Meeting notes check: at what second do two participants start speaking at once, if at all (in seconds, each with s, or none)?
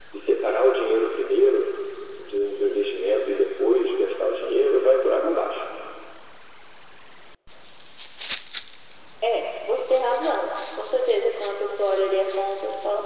none